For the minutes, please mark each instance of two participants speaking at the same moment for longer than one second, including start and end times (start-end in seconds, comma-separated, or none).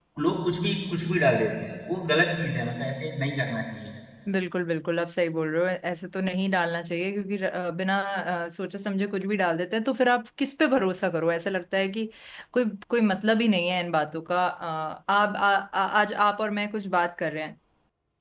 none